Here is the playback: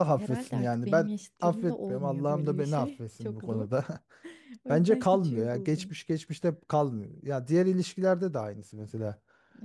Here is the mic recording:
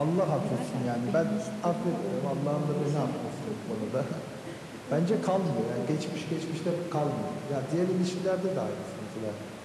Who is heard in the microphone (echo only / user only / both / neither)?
echo only